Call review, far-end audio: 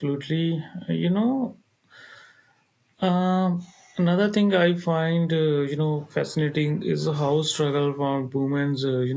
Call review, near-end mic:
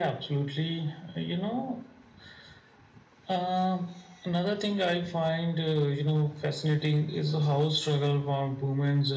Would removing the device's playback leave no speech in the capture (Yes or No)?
Yes